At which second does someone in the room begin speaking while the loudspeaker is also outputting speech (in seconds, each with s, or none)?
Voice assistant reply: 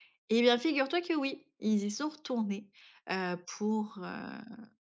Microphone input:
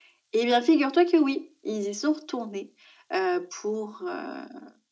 none